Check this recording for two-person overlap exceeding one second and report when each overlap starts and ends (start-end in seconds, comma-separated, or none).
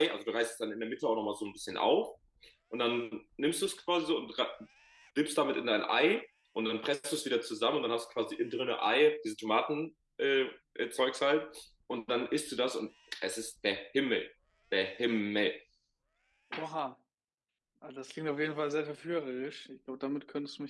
none